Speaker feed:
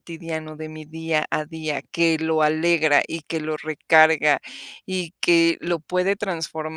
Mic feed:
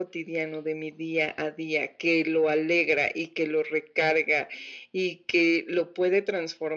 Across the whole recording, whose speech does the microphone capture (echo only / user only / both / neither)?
echo only